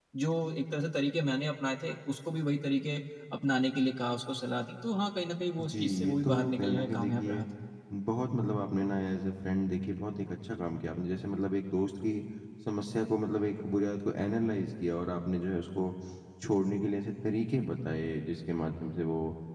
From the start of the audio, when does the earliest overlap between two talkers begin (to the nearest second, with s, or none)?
6 s